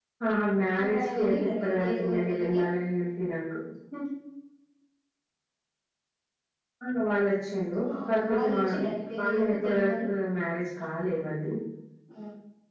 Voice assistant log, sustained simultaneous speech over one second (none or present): present